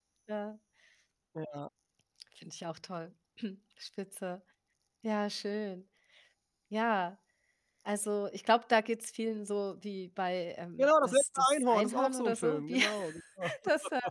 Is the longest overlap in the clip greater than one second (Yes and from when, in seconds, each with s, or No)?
Yes, from 10.8 s